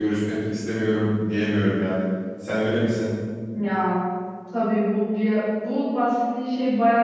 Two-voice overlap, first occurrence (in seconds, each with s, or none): none